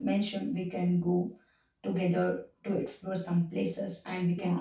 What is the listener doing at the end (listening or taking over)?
taking over